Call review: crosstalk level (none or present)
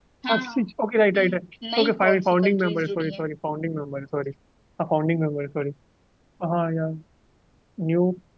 present